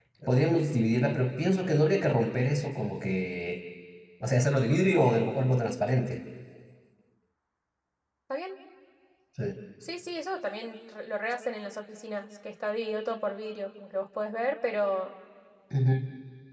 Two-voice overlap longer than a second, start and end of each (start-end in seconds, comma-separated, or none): none